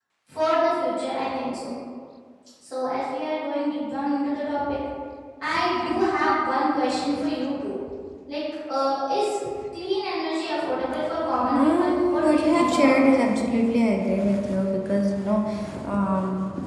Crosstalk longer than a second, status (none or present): present